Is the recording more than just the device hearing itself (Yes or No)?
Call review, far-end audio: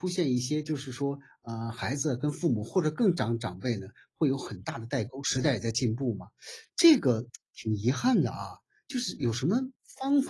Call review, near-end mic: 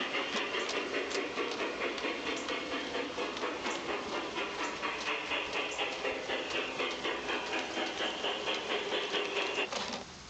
No